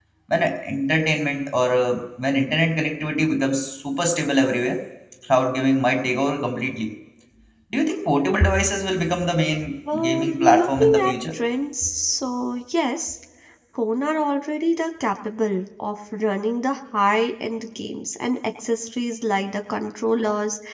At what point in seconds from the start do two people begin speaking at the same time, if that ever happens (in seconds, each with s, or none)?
9.9 s